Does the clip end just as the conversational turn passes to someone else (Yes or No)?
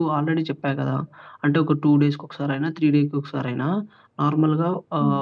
No